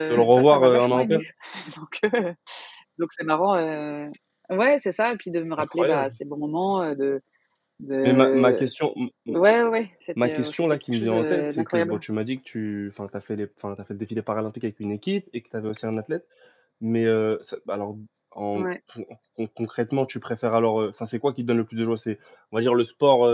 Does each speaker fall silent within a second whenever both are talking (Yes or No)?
No